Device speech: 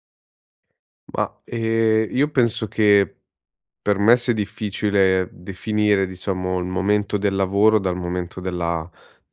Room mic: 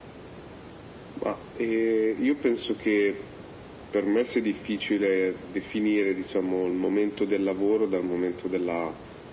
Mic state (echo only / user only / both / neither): echo only